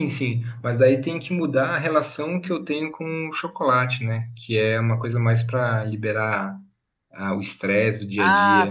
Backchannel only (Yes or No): No